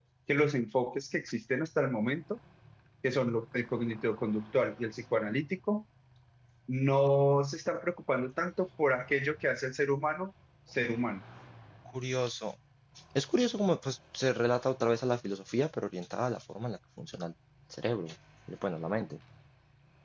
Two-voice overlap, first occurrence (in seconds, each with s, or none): none